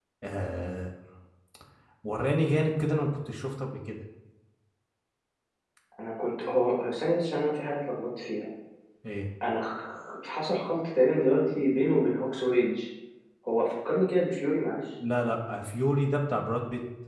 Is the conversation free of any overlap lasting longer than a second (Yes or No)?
Yes